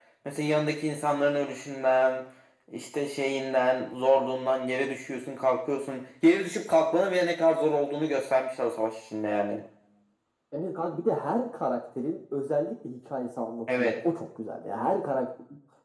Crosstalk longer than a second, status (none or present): none